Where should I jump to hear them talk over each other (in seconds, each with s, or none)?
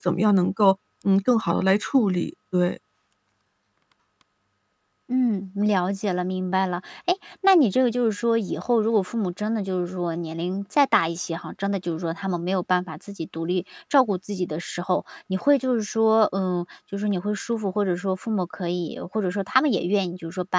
none